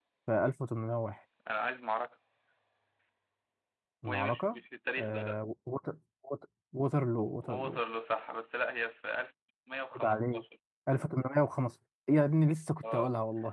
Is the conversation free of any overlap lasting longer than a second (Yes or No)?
Yes